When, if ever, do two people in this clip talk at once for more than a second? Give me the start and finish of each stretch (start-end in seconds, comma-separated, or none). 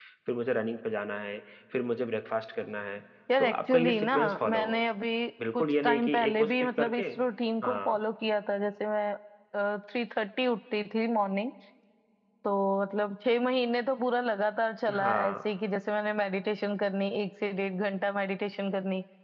3.4-4.8, 5.5-7.0